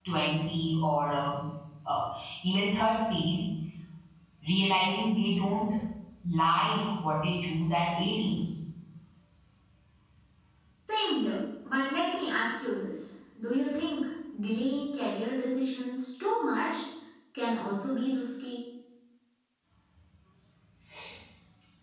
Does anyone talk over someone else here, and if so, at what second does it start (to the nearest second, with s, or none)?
none